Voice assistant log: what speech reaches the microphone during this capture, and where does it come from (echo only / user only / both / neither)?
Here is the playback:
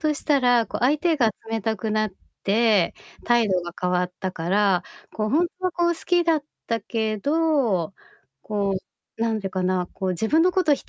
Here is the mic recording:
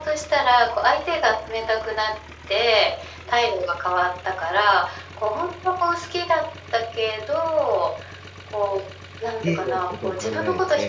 both